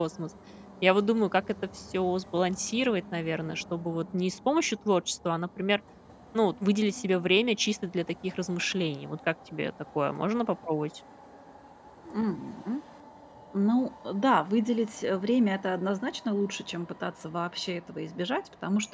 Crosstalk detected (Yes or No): No